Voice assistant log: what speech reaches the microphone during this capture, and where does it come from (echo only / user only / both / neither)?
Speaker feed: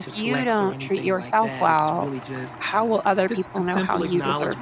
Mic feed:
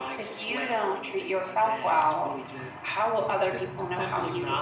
echo only